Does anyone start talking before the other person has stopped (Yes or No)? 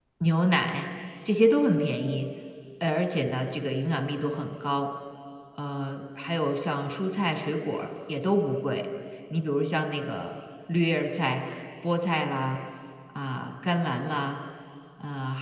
No